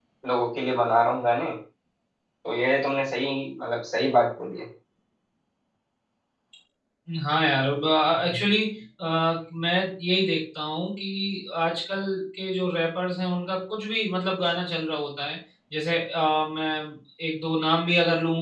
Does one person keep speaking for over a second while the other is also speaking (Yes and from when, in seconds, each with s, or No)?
No